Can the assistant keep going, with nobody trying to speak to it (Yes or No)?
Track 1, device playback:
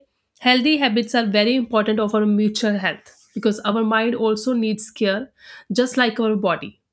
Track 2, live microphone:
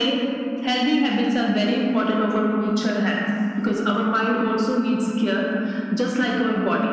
Yes